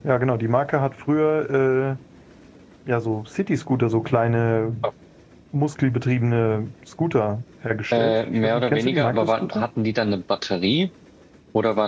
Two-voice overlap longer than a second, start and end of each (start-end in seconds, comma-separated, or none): 7.9-9.6